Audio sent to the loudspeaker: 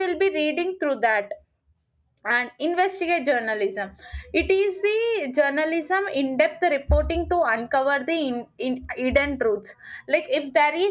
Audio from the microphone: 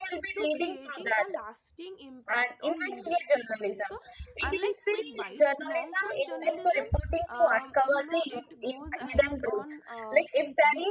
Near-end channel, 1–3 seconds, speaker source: both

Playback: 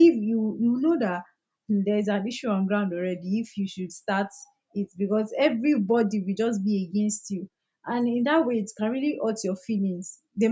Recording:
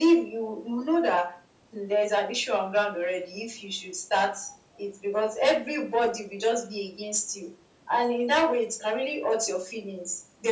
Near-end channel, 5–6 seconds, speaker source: echo only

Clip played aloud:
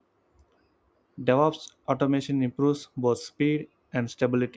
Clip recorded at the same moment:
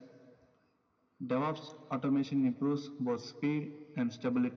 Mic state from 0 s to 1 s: neither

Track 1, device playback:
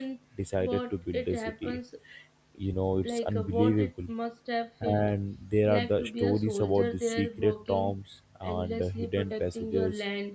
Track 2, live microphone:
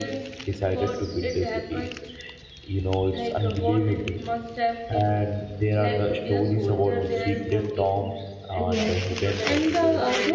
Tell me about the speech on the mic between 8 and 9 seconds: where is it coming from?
both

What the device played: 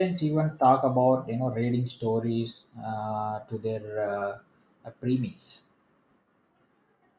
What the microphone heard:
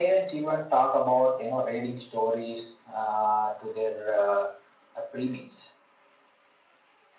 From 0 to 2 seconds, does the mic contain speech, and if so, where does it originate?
echo only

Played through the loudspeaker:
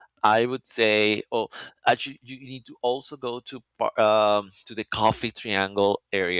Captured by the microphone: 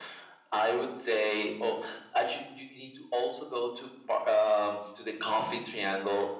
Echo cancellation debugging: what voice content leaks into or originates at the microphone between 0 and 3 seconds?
echo only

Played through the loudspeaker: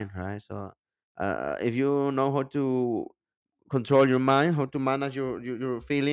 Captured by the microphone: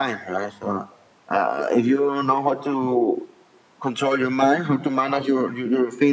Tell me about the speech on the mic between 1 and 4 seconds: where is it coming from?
echo only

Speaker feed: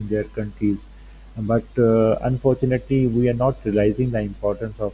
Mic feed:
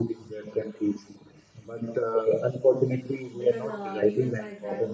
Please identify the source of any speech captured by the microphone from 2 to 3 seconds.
echo only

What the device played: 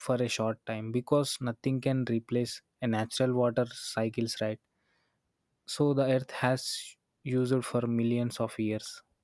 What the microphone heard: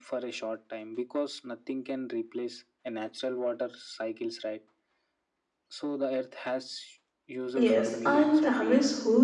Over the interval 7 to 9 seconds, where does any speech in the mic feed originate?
both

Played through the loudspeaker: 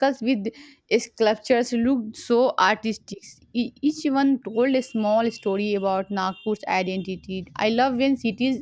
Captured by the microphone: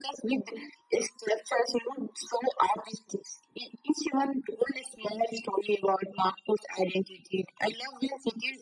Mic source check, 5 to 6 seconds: echo only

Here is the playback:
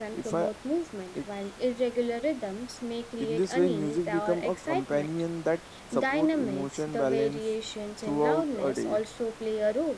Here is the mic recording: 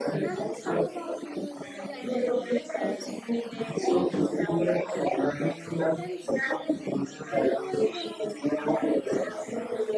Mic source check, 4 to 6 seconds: both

